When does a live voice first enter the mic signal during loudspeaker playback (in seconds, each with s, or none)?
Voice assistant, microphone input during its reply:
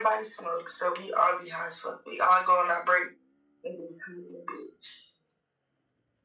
none